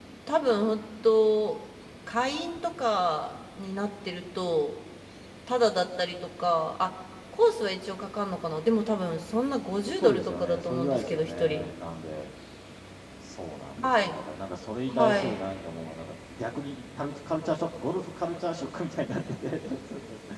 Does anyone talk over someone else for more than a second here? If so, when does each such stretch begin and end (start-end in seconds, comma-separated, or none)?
10.0-11.6